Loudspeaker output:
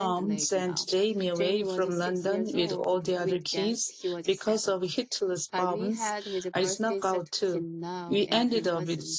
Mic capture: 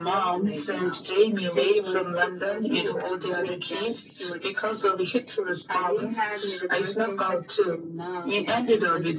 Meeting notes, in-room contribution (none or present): none